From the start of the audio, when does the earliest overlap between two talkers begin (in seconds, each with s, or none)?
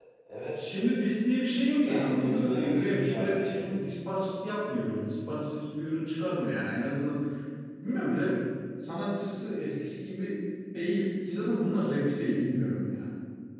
1.9 s